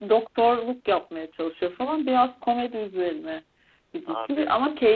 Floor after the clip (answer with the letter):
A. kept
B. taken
A